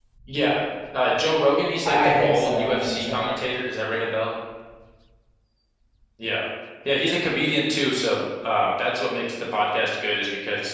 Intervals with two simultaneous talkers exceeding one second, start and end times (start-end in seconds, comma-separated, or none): 1.8-3.3